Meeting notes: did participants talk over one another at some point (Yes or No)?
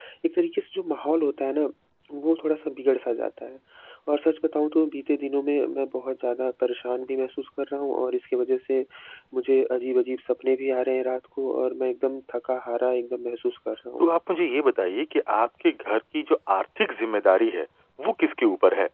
No